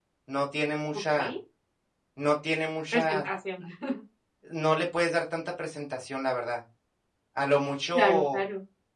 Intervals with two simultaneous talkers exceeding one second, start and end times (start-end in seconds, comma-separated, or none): none